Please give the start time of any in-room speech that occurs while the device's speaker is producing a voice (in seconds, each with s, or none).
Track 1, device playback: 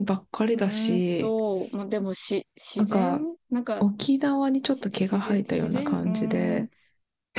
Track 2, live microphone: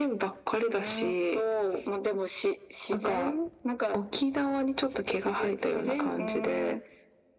none